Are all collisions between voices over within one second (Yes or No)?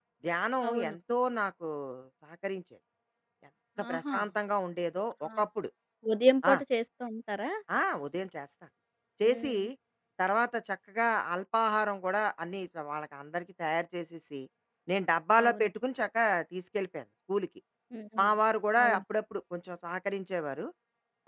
Yes